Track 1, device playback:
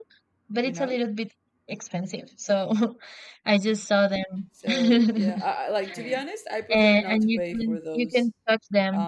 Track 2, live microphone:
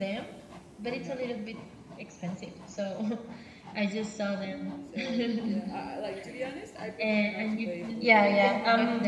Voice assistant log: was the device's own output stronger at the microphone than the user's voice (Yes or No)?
No